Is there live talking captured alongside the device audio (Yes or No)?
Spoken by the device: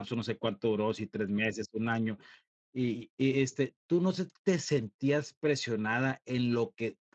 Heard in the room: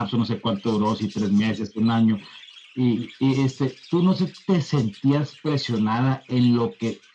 No